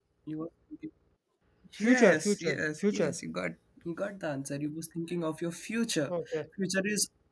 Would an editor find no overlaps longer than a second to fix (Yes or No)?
No